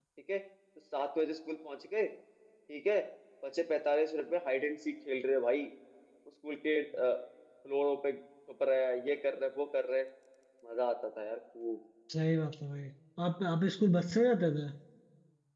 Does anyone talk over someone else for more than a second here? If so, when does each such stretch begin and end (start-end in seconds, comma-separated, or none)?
none